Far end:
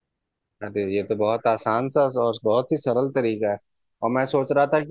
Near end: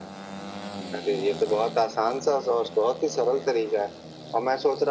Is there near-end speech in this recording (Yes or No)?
No